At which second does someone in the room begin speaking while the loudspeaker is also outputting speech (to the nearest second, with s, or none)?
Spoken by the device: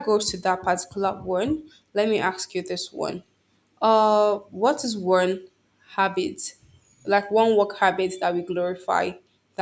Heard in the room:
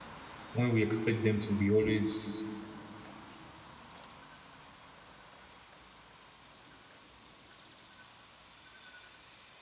1 s